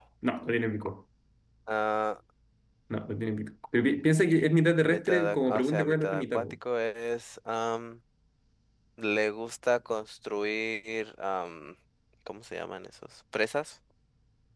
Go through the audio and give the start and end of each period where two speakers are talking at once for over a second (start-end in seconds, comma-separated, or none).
4.8-6.4